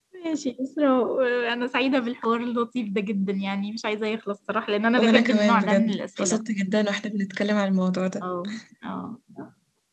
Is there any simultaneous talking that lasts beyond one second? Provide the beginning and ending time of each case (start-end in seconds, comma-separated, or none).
5.0-6.4